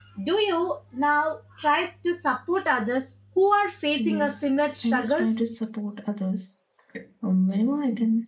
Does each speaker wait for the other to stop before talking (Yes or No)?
No